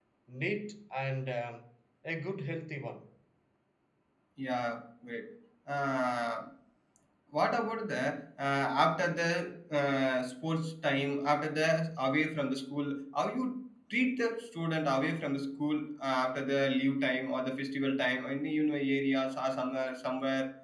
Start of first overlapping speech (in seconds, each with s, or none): none